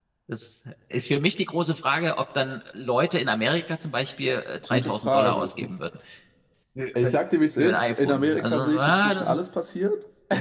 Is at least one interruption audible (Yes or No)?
Yes